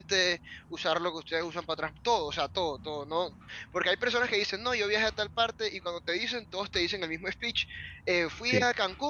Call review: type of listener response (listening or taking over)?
listening